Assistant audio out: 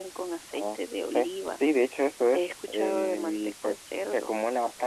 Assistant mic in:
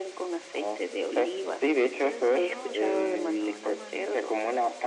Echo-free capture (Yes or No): No